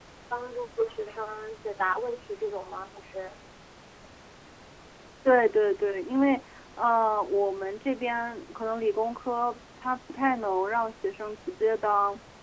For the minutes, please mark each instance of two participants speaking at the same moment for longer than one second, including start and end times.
none

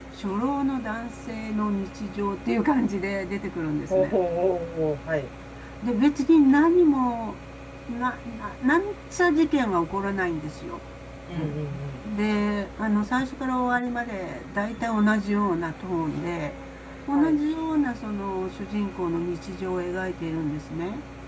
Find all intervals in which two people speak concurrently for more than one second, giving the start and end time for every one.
none

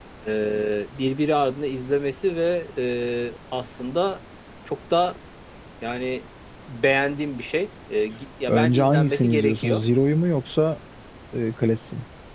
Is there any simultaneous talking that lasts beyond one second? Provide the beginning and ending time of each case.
8.5-9.8

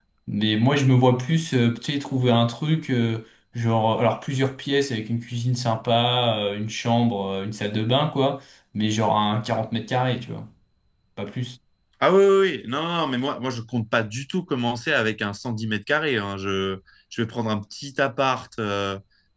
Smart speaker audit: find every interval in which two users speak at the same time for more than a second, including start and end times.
none

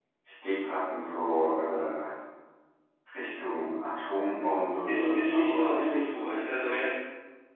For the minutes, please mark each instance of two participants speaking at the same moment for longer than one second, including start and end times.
4.9-6.8

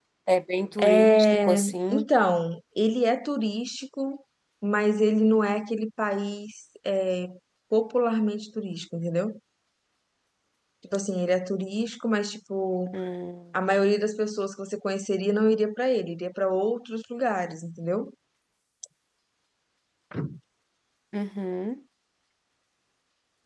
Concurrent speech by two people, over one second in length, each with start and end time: 0.8-2.0

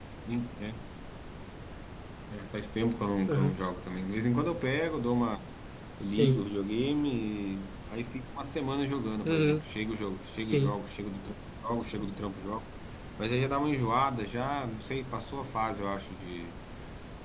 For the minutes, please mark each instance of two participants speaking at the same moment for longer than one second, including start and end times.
none

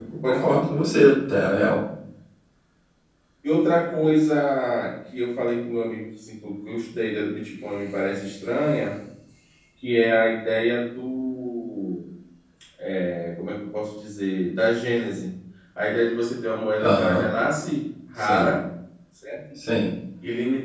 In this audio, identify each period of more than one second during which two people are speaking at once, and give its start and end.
none

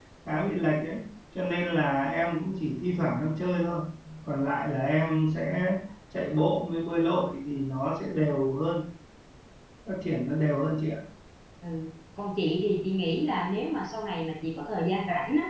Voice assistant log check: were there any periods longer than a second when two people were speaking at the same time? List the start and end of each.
none

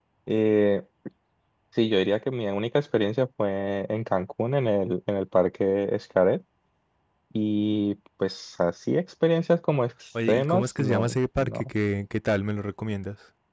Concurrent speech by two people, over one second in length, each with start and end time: 10.3-11.7

